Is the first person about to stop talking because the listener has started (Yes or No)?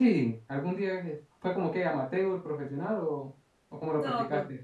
Yes